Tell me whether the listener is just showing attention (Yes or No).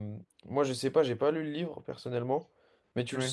Yes